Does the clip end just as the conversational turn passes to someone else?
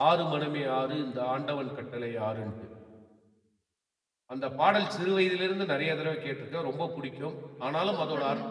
No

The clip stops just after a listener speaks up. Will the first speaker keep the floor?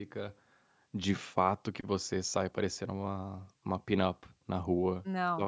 Yes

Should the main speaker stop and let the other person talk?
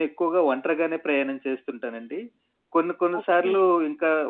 No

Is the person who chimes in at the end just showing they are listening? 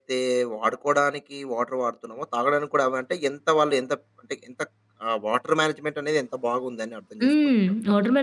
No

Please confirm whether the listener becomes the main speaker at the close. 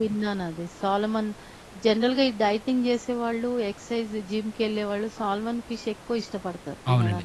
Yes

